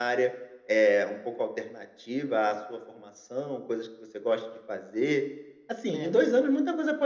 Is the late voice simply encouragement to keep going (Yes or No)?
Yes